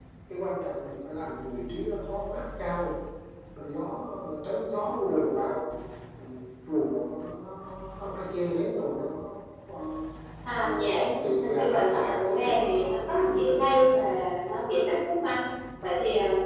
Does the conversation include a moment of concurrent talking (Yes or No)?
Yes